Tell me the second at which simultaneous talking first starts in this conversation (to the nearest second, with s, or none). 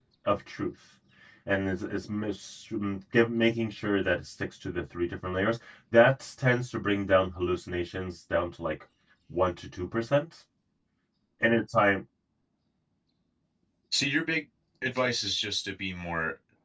none